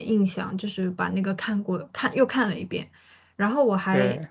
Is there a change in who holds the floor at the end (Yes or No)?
No